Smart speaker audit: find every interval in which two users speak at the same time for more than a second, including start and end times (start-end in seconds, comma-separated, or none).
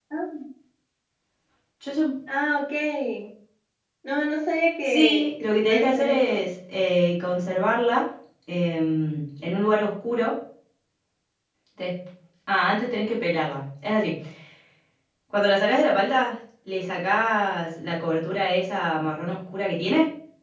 4.8-6.4